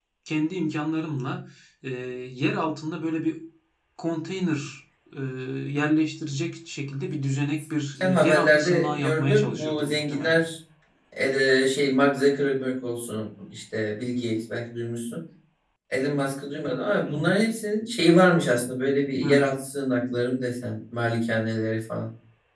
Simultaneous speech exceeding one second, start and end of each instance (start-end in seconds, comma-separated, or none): 8.0-10.4